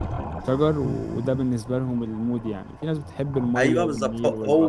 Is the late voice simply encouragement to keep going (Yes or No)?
No